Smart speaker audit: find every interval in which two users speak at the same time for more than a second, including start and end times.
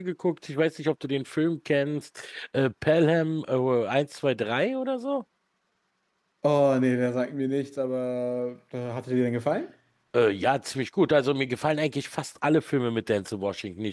none

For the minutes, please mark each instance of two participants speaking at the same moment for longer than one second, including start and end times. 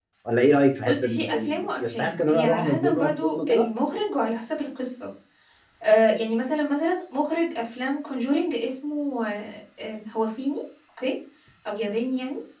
0.8-3.7

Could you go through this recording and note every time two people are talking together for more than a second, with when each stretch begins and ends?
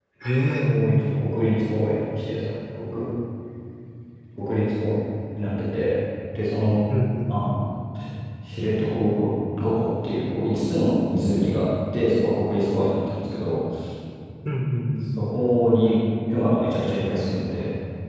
none

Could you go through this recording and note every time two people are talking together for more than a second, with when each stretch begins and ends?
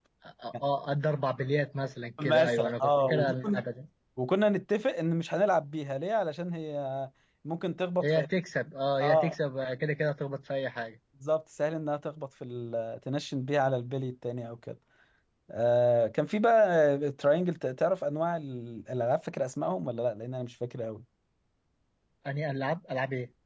2.2-3.6

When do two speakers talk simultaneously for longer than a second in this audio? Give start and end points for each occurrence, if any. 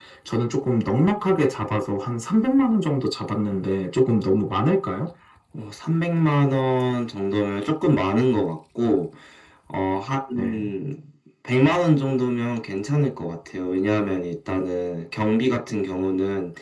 none

